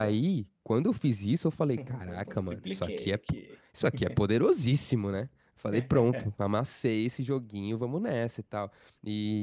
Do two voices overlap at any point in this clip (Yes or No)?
Yes